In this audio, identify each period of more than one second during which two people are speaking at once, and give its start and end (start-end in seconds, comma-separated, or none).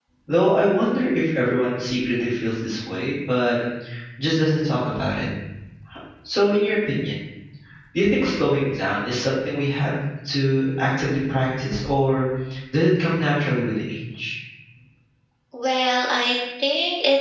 none